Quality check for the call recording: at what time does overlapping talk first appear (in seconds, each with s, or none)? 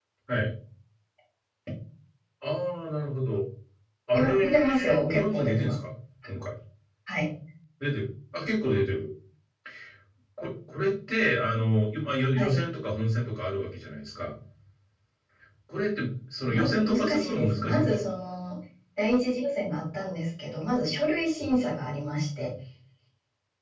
4.1 s